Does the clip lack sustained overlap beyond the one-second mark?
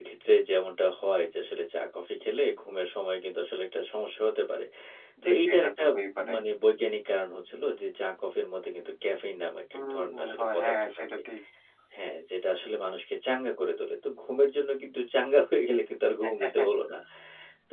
No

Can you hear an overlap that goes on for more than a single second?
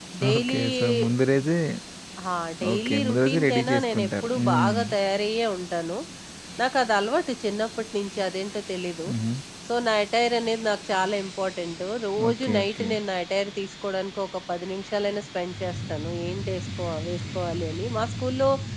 Yes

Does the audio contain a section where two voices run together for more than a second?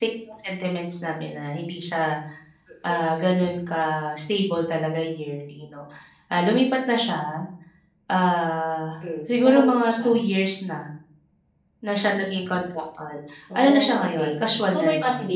Yes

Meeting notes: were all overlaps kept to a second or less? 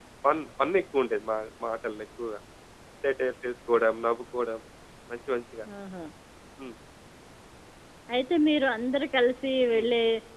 Yes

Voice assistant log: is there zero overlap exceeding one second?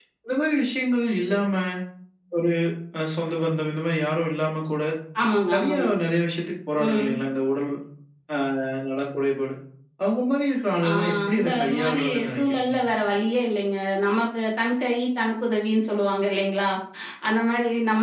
No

